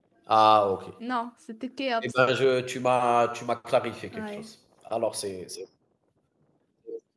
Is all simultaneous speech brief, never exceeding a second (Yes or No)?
Yes